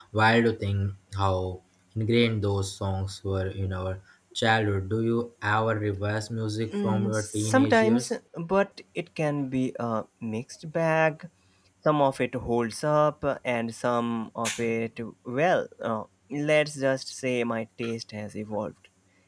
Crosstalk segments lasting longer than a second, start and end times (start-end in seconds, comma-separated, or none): 6.8-8.1